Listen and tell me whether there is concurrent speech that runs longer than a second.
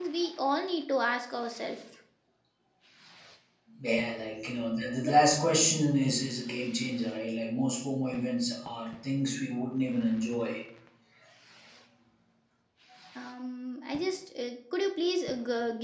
No

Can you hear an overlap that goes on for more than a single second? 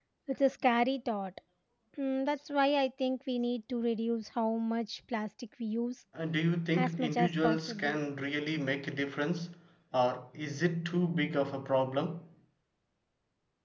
Yes, from 6.7 s

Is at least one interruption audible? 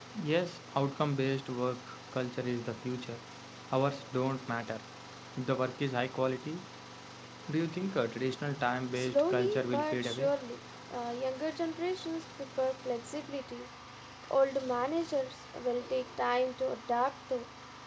Yes, from 8.9 s

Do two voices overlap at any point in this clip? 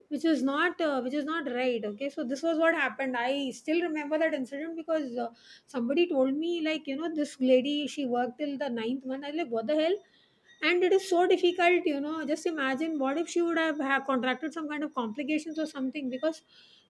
No

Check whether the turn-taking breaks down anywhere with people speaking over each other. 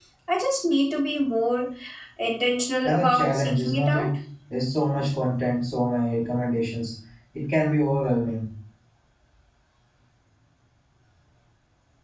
Yes, from 2.8 s

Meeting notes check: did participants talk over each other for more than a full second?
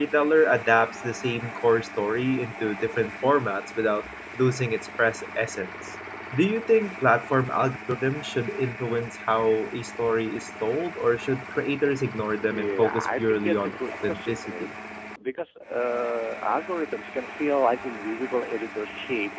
Yes, from 12.5 s

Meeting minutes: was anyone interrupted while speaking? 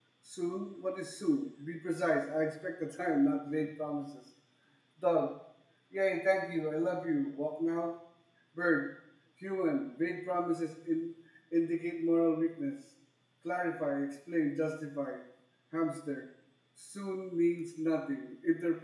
No

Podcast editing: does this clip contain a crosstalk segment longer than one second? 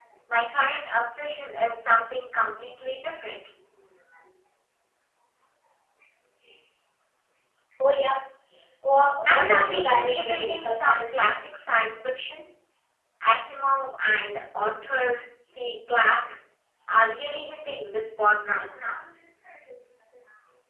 Yes, from 9.2 s

